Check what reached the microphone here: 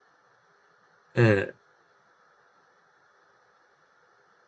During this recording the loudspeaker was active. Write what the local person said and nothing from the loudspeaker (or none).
うん。